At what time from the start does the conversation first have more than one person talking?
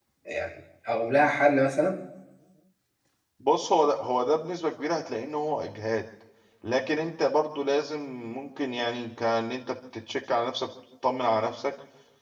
none

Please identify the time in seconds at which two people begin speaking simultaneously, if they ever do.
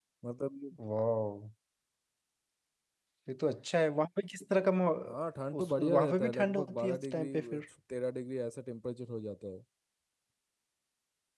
6 s

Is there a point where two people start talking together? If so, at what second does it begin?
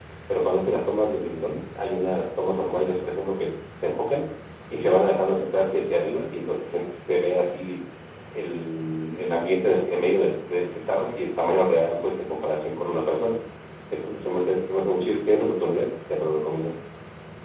none

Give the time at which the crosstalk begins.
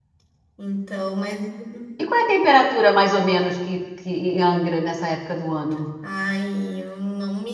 none

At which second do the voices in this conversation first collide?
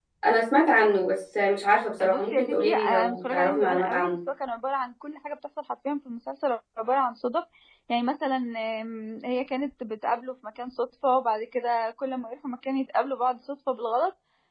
2 s

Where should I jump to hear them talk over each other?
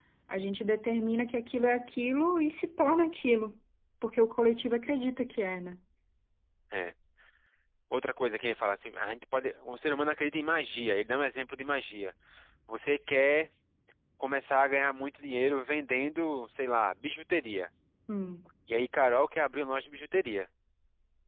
none

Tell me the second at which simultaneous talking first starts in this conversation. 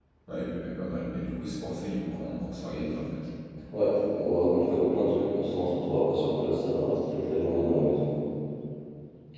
none

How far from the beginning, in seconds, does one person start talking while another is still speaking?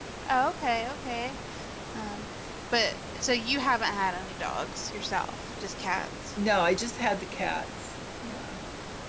none

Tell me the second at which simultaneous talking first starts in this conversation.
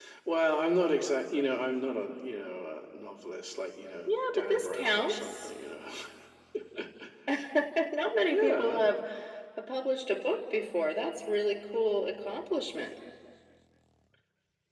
4 s

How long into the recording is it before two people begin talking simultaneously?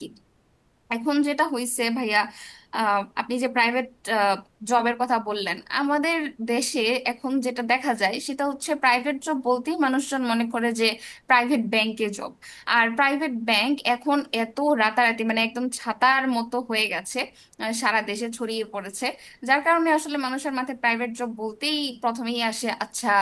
none

